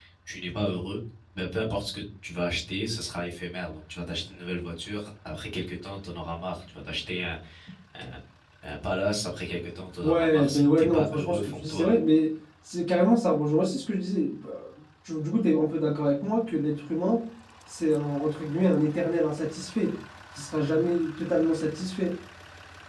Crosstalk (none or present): present